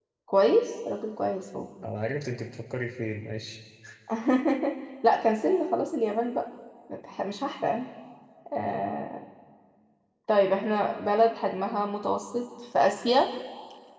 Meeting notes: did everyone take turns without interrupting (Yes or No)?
Yes